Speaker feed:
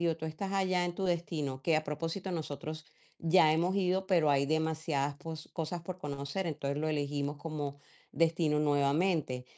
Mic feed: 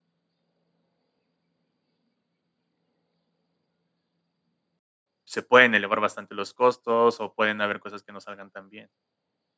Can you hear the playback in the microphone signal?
No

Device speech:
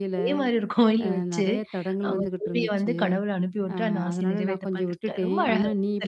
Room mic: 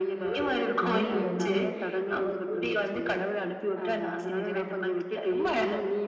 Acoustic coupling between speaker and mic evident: Yes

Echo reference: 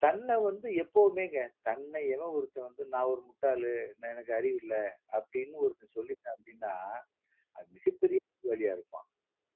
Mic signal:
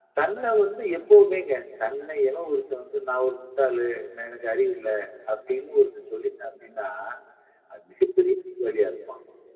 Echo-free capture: No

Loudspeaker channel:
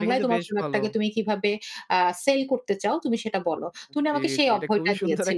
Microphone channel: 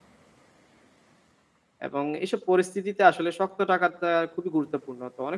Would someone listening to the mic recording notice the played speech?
No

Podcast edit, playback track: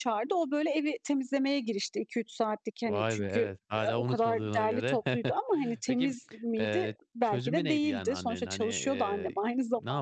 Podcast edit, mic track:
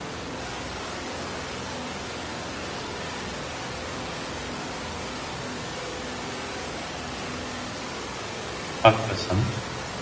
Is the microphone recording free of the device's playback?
Yes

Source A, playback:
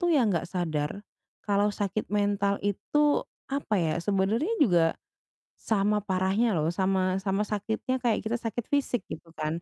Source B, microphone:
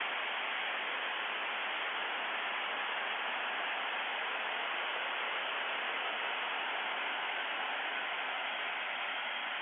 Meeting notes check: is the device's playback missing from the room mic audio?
Yes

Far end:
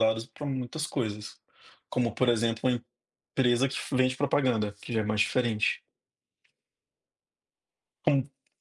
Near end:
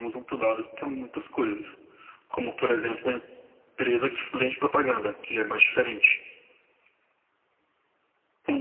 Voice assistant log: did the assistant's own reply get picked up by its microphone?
Yes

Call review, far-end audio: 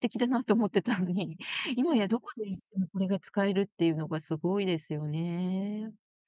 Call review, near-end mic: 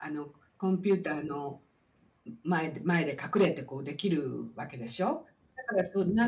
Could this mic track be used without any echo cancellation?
Yes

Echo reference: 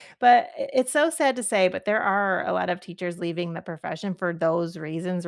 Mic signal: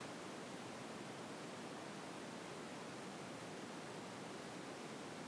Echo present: No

